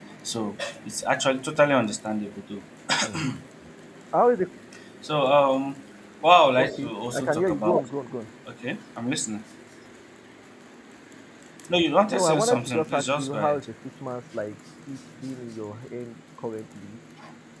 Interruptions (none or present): present